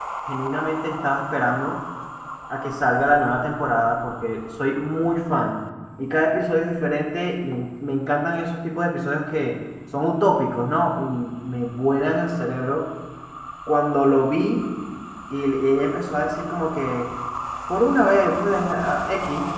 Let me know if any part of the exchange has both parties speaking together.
No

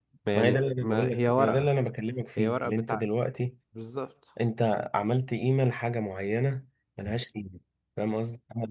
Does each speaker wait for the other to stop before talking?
No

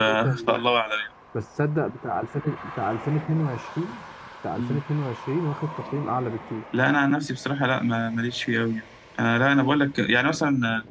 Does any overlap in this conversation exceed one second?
No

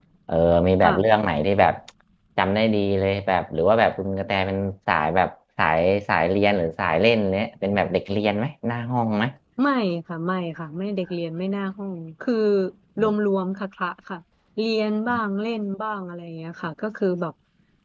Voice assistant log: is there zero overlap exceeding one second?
Yes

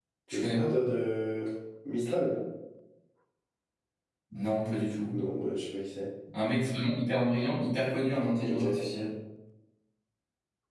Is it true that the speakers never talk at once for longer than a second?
Yes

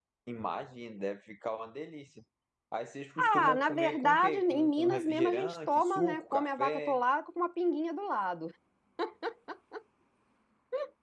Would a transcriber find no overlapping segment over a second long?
No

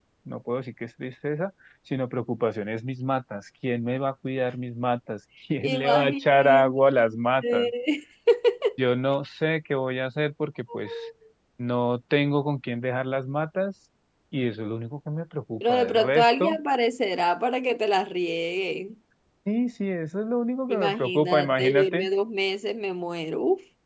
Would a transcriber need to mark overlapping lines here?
Yes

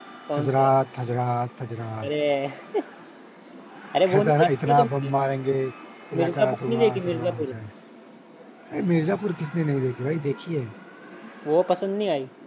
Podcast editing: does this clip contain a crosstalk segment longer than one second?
Yes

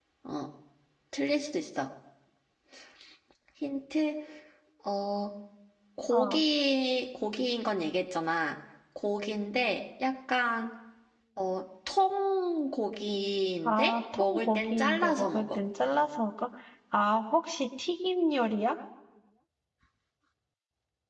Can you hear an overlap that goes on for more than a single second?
Yes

